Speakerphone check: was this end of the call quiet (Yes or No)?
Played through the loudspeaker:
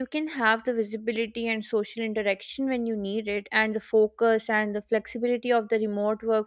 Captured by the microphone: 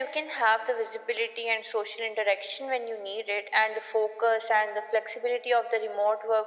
Yes